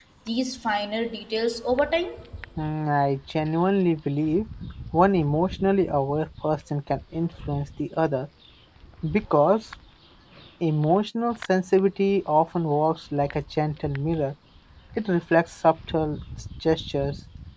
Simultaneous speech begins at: none

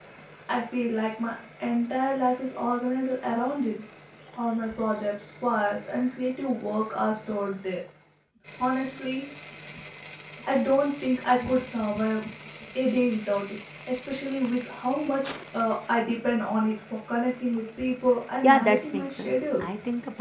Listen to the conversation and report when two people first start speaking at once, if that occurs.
18.4 s

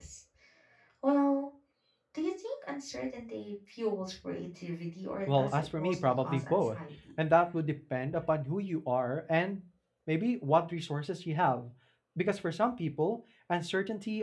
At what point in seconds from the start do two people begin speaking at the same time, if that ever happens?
5.3 s

